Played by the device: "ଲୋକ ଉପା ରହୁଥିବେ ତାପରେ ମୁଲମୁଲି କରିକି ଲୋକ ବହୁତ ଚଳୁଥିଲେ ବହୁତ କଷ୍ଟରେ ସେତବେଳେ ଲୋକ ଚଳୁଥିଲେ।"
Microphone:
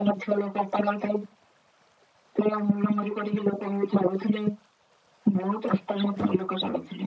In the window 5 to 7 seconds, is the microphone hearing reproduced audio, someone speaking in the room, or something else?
echo only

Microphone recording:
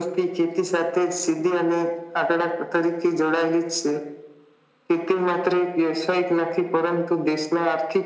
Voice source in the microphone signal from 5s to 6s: echo only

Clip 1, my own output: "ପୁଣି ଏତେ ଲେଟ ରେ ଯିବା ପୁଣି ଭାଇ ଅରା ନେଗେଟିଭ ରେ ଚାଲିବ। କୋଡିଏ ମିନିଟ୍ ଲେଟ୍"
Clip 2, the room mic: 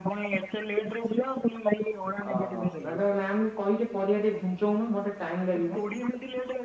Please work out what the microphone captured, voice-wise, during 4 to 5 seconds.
user only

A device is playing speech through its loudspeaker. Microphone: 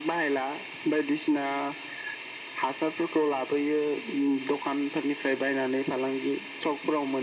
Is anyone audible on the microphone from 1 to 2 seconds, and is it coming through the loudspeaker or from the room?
echo only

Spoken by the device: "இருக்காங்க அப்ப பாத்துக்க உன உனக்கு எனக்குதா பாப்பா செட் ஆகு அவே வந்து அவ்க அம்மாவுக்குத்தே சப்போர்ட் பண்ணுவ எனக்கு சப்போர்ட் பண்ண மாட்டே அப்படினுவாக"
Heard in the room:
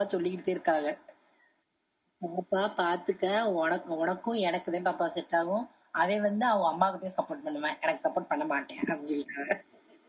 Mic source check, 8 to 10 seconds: echo only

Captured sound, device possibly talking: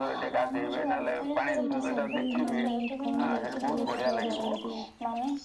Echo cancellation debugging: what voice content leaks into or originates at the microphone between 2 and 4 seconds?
both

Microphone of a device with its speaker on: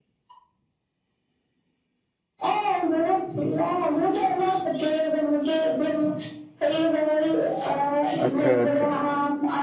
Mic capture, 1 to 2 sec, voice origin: neither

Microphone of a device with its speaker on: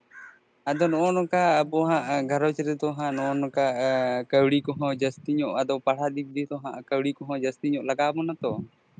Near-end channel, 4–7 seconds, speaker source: user only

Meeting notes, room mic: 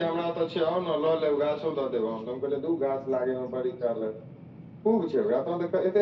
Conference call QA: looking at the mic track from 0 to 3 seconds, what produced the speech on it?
echo only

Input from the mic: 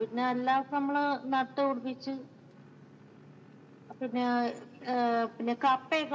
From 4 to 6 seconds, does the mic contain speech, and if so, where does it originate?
echo only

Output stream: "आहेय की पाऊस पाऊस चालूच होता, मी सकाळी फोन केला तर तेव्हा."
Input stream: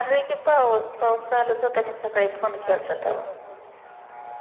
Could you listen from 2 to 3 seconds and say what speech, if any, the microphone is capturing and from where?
both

